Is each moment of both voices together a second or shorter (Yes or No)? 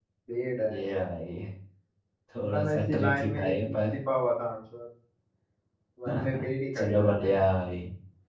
No